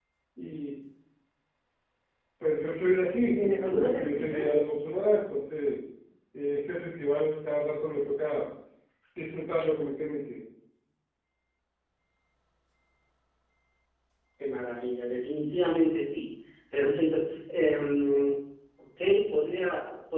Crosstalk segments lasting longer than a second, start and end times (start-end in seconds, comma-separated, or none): 3.2-4.5